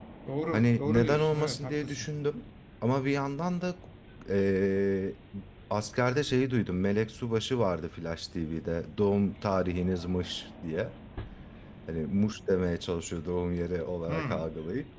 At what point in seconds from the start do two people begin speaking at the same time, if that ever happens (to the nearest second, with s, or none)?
1 s